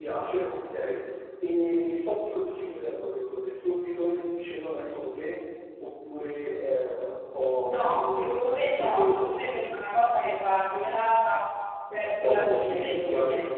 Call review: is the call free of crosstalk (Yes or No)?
No